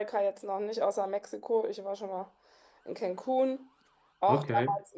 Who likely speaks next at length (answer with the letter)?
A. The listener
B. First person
B